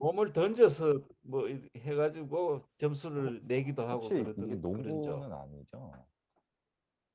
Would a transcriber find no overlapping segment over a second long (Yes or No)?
No